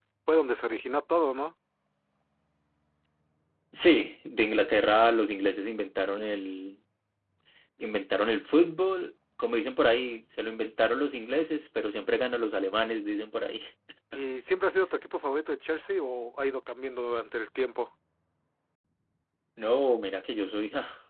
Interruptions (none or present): none